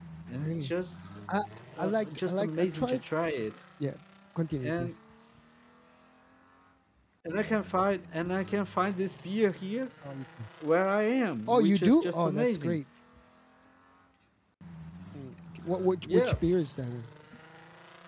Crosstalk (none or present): present